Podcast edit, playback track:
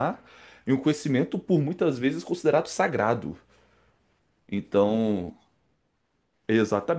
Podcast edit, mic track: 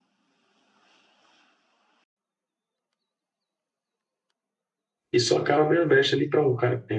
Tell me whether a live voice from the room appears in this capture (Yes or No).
Yes